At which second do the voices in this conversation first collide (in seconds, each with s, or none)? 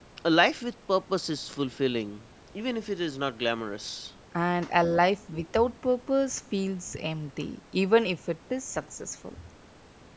none